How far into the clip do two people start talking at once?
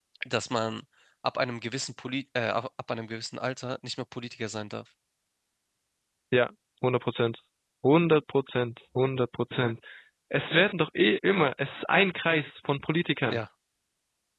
none

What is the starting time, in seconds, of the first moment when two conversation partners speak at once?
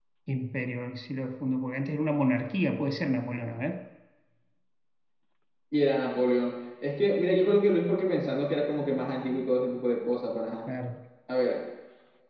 none

